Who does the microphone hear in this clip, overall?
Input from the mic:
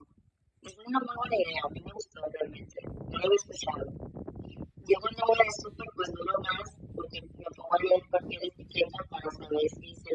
echo only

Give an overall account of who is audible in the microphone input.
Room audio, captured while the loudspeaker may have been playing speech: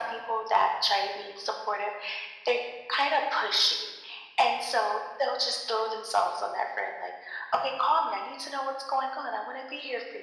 echo only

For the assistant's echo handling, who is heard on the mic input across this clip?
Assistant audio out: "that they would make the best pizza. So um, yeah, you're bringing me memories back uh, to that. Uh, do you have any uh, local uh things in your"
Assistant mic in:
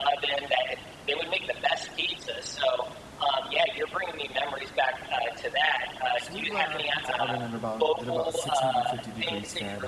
both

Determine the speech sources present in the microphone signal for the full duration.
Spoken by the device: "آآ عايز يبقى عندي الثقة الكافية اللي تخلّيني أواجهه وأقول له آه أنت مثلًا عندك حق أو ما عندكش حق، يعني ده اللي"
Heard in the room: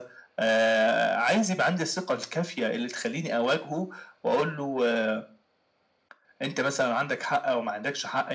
echo only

